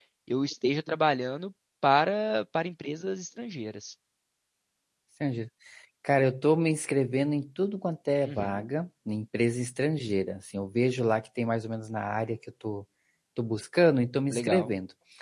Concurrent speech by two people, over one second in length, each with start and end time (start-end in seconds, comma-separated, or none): none